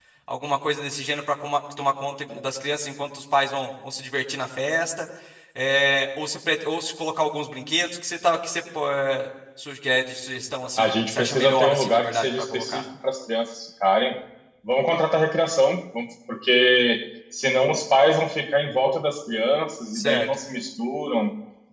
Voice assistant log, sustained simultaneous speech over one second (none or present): present